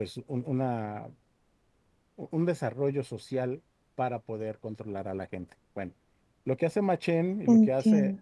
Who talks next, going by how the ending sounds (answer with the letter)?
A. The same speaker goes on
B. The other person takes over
A